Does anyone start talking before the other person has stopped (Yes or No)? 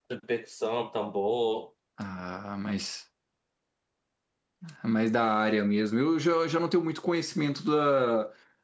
No